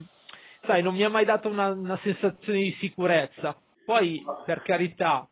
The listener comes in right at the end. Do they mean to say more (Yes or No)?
No